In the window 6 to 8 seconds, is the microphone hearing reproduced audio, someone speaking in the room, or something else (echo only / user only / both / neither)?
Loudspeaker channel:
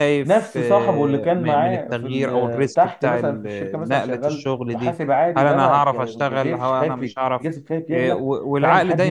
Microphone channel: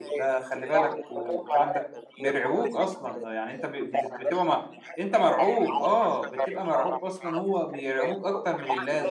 both